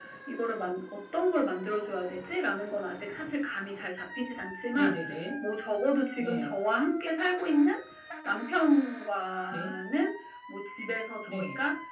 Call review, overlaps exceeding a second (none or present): none